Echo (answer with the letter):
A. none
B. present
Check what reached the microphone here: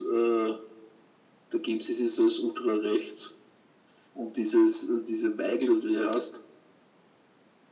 B